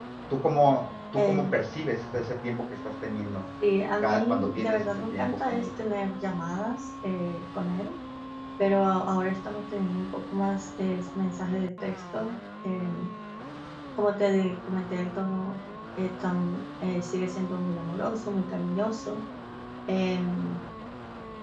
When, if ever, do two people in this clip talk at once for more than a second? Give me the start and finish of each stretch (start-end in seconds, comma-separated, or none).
4.0-5.7